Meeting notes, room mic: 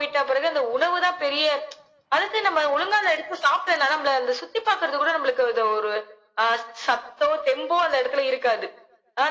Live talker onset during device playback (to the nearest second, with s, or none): none